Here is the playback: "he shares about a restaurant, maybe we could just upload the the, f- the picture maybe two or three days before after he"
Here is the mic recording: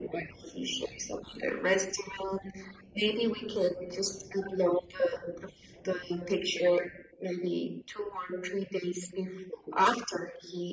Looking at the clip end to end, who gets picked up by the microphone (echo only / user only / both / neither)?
echo only